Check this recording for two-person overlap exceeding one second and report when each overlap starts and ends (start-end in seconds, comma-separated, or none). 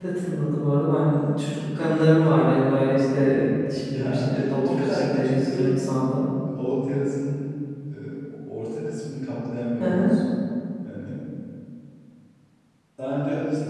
3.8-5.8